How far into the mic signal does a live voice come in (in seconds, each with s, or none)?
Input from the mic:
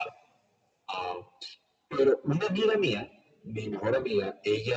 none